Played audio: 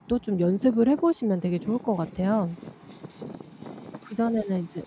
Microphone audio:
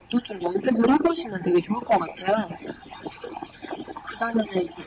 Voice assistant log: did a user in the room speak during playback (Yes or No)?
No